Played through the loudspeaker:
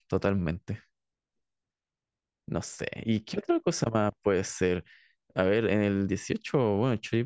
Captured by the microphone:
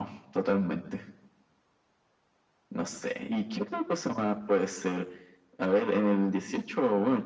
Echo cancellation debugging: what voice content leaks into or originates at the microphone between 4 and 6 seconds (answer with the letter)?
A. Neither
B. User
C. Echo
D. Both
C